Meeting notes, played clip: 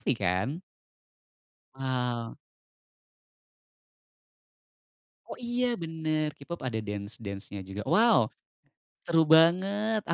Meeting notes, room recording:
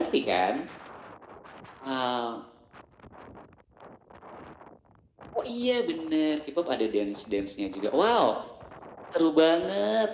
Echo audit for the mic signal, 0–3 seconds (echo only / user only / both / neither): echo only